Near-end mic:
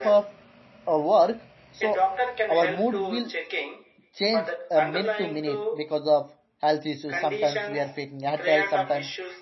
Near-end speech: present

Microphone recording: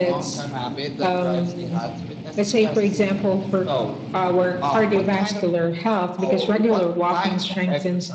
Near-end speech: none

